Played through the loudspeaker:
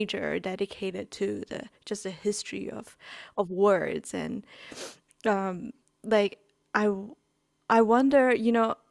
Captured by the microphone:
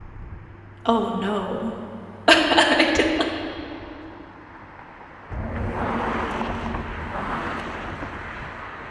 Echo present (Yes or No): No